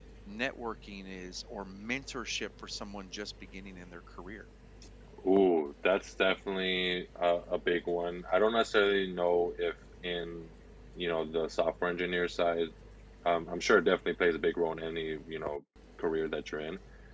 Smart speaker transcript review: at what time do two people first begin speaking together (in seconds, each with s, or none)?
none